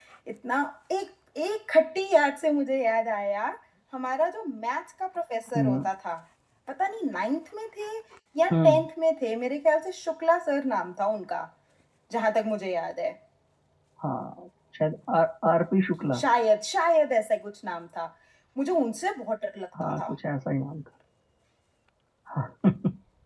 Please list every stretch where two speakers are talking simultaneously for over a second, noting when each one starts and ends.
none

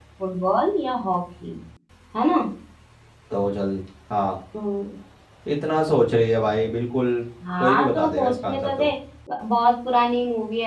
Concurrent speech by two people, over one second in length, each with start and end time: 7.6-8.9

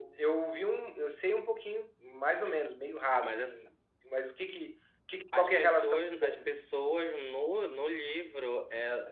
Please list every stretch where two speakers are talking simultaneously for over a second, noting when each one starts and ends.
5.3-6.6

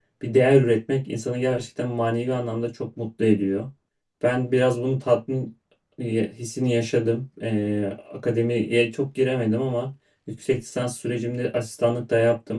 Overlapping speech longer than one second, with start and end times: none

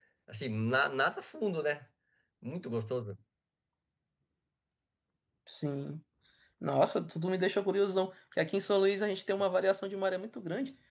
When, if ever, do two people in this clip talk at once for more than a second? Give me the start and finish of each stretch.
none

